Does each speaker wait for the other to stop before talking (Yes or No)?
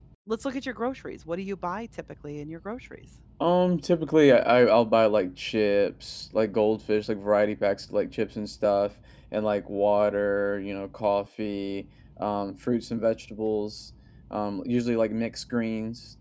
Yes